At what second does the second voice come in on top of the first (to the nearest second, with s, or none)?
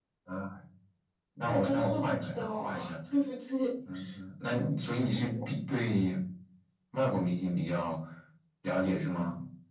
1 s